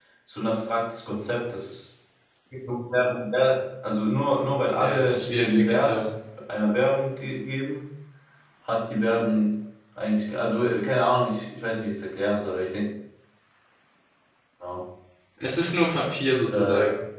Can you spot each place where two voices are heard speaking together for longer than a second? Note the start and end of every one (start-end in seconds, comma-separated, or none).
4.7-6.0